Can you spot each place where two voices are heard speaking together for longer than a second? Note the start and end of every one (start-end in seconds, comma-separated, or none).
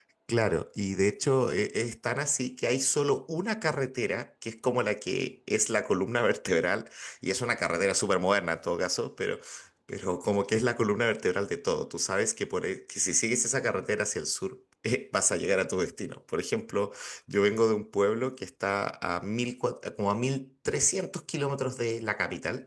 none